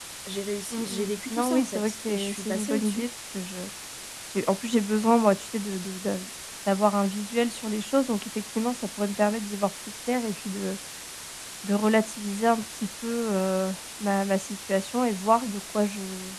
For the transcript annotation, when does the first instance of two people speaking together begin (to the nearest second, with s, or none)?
1 s